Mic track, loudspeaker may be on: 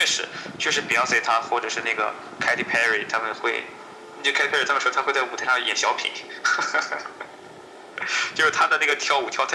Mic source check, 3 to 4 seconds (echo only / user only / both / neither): echo only